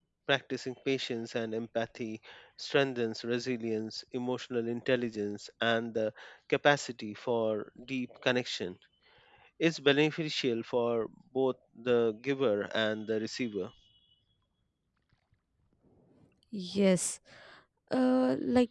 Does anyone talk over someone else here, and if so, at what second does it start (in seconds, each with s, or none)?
none